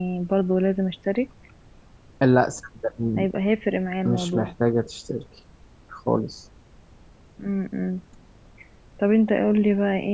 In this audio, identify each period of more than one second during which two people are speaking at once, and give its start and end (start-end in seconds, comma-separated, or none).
none